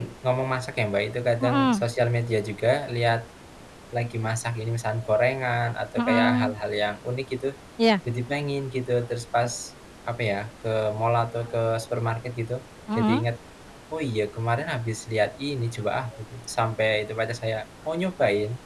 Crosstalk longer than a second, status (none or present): none